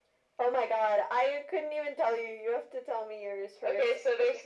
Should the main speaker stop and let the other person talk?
Yes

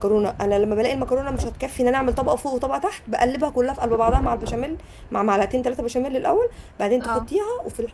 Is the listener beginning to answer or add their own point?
No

